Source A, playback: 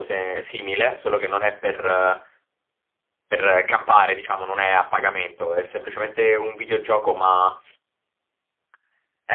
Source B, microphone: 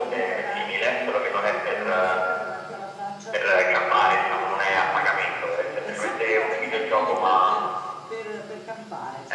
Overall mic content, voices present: both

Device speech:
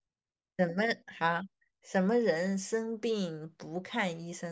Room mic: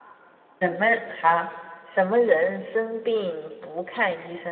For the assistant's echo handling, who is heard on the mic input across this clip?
echo only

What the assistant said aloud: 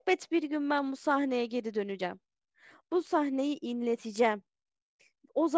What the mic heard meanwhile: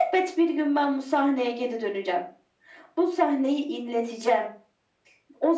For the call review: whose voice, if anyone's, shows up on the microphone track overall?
echo only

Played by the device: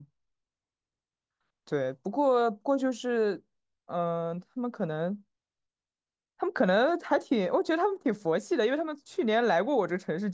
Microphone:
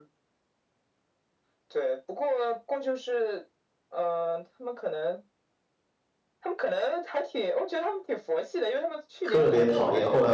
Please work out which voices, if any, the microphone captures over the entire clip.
both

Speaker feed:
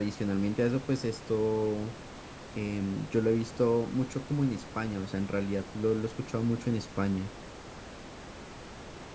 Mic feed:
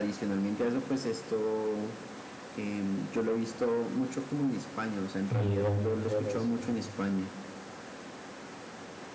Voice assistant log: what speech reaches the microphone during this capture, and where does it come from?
both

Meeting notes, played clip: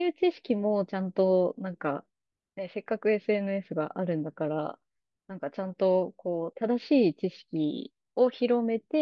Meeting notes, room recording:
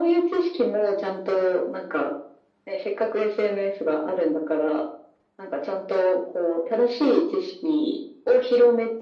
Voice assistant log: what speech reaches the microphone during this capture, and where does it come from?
echo only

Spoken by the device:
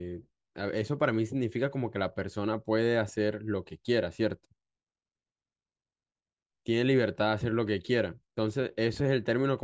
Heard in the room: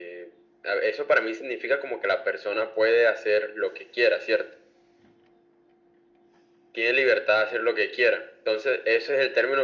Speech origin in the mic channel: echo only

